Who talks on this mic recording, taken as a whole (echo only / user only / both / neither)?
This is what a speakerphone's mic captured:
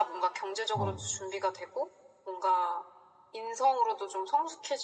both